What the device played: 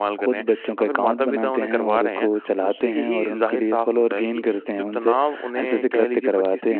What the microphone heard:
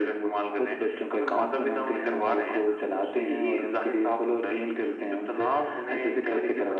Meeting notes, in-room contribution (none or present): none